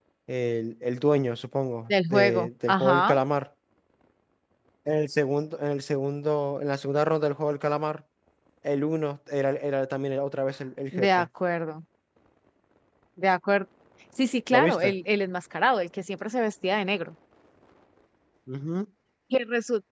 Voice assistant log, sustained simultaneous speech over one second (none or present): present